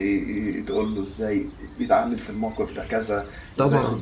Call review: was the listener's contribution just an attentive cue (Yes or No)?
Yes